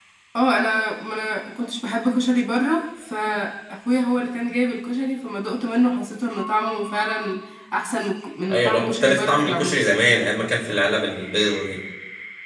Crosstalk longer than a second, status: present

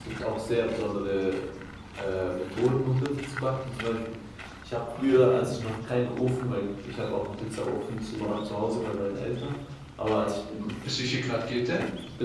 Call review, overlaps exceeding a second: none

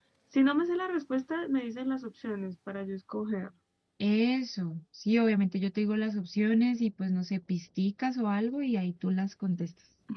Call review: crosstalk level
none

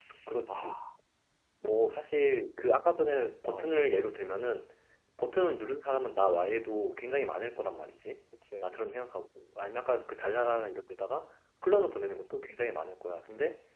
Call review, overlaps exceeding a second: none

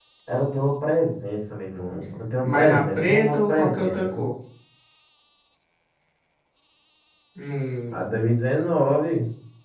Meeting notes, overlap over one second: present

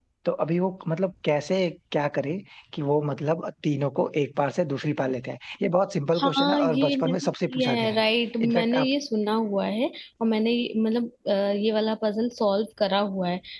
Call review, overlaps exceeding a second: present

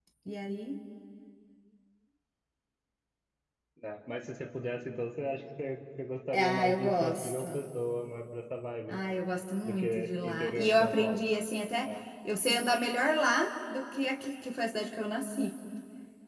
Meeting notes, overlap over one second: present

